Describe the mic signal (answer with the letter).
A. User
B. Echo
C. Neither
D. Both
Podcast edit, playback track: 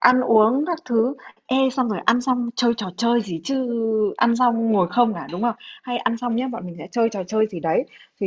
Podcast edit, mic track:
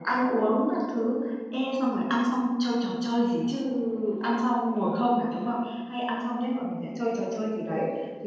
B